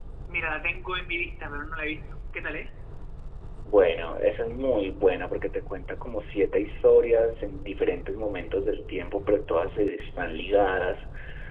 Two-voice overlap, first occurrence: none

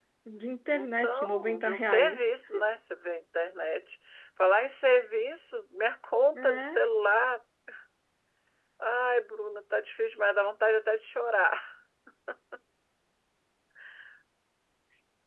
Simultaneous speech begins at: 0.7 s

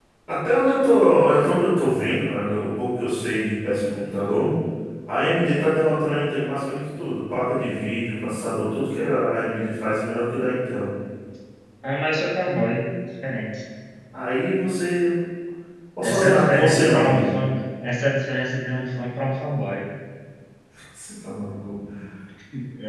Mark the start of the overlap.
16.0 s

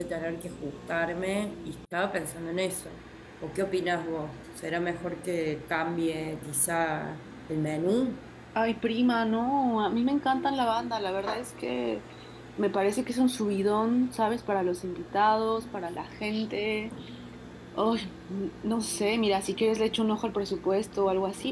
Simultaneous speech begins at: none

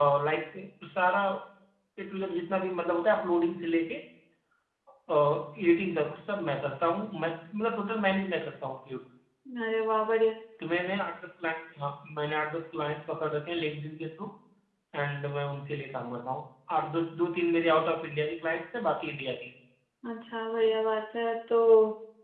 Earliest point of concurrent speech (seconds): none

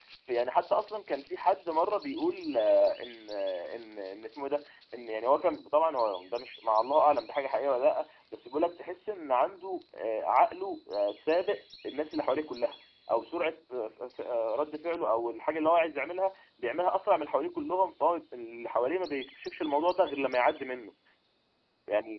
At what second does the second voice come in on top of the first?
none

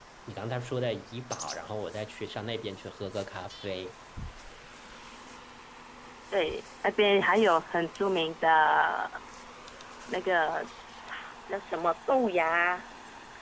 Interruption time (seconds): none

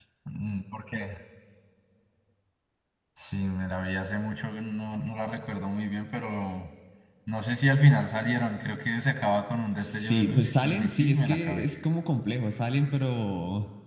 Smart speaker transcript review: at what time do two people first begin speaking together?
9.8 s

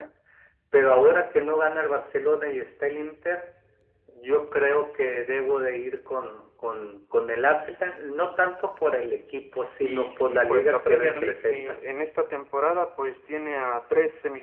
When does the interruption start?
9.8 s

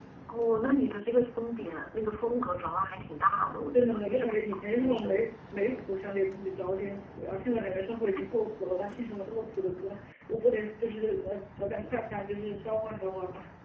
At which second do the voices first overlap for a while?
3.7 s

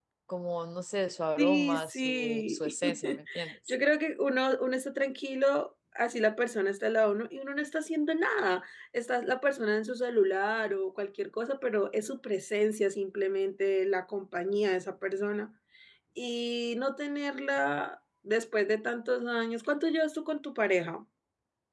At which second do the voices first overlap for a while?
1.4 s

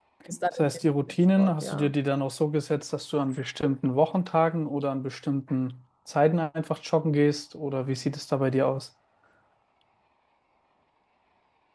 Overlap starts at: 0.6 s

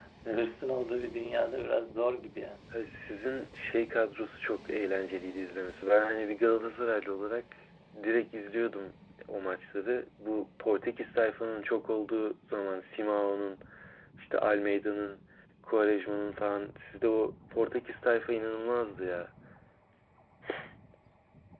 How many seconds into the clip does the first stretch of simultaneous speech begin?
none

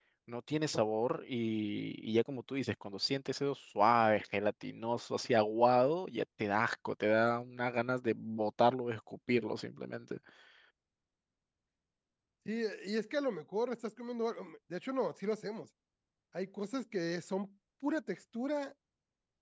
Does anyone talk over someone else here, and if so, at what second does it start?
none

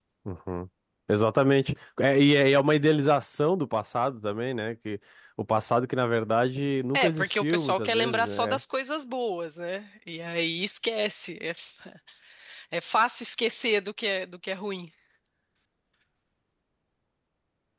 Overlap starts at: 6.9 s

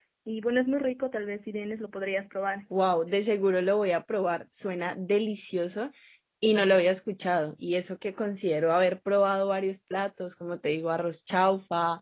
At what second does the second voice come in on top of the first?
none

